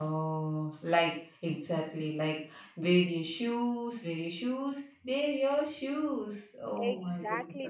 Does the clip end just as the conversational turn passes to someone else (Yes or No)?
Yes